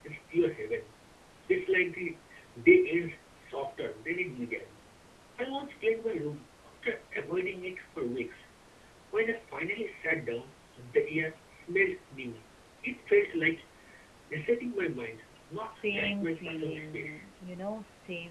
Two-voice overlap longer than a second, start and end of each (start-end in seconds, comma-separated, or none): 15.6-17.2